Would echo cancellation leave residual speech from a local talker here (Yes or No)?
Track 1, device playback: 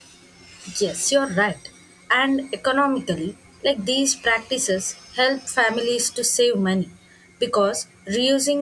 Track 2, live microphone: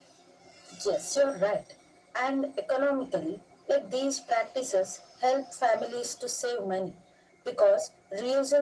No